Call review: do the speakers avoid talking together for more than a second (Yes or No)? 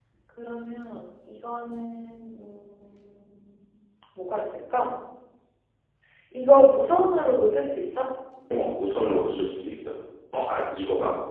Yes